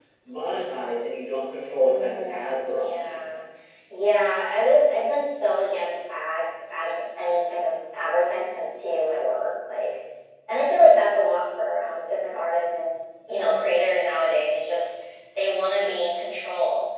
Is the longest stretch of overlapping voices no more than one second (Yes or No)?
No